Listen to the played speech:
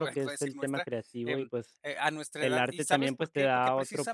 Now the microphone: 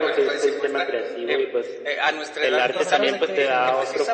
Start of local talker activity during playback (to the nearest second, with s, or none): 3 s